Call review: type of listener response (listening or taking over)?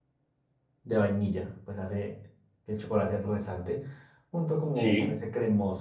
listening